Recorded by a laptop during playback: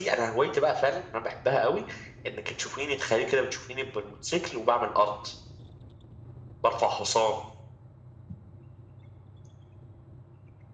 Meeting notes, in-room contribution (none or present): none